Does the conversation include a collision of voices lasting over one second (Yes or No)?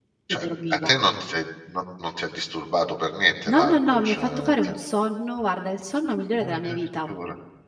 Yes